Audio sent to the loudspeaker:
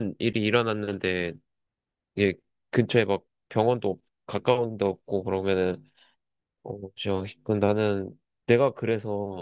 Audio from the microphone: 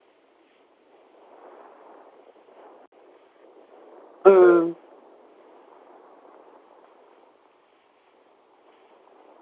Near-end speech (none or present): present